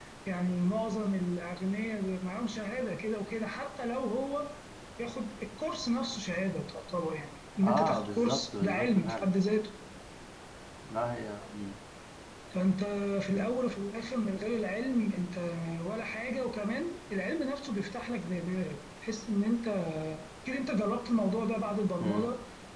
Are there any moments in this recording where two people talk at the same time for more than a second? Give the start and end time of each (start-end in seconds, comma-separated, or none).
7.6-9.2